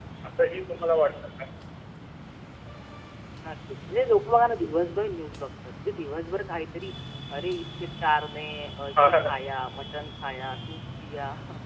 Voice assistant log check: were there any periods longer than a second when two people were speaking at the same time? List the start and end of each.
none

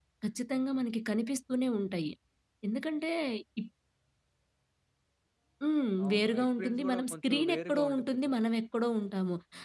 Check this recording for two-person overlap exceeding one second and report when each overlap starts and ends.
6.0-8.3

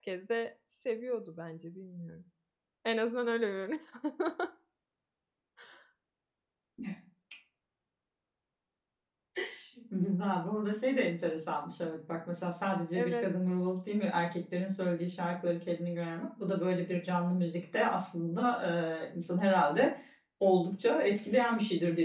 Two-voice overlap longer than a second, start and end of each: none

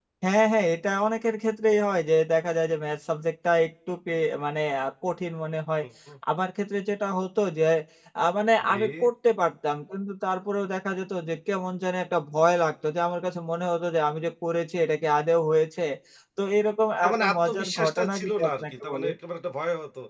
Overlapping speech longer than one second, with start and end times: 17.0-19.1

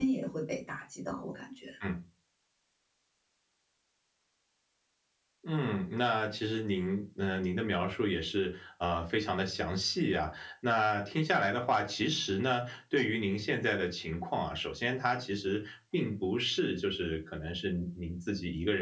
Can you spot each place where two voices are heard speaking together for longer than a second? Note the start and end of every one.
none

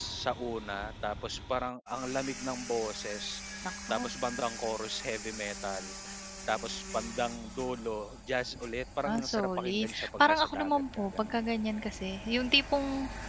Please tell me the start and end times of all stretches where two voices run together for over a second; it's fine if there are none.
9.1-11.4

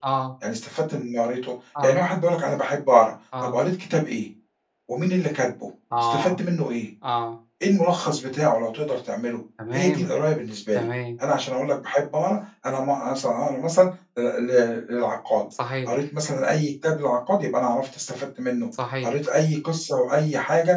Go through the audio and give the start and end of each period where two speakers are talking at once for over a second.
none

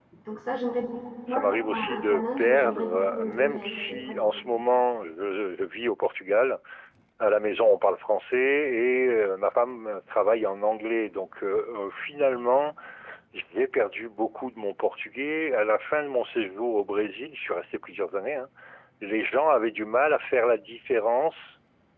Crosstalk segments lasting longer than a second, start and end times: 1.3-4.3

